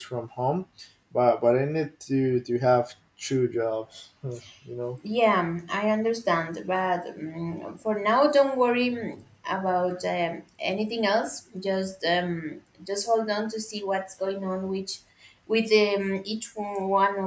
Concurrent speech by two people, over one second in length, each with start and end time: none

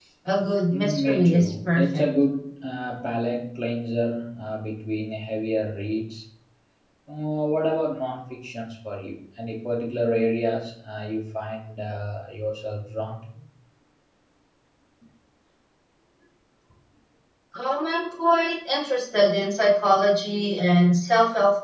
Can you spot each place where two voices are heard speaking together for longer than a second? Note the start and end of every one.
0.7-2.0

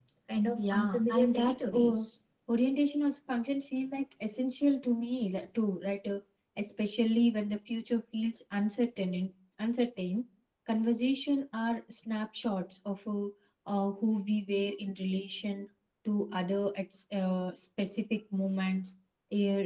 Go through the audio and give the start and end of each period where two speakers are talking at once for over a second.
0.6-2.0

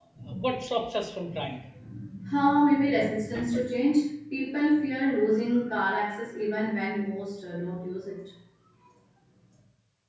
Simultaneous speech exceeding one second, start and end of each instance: none

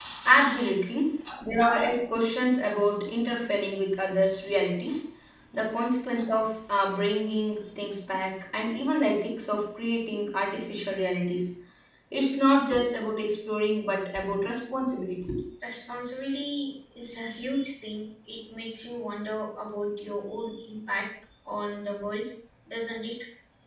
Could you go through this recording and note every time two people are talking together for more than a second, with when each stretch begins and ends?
none

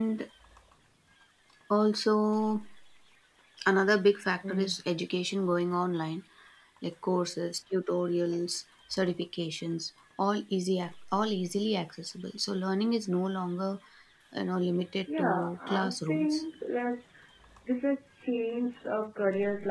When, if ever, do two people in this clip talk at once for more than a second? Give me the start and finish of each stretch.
15.2-16.4

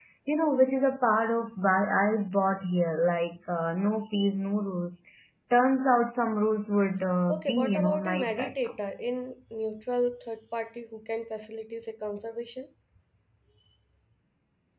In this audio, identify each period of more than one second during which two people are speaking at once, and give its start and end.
7.3-8.5

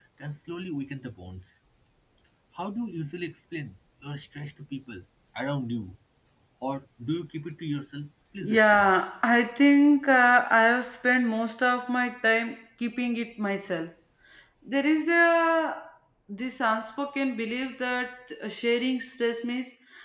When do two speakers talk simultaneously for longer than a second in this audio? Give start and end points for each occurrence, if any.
none

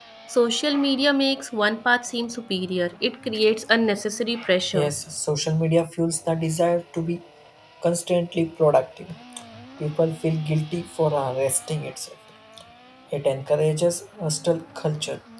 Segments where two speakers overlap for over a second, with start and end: none

